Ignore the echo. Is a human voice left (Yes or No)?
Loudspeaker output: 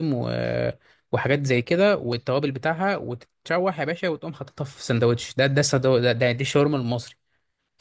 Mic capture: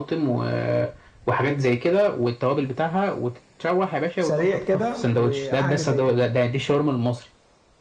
Yes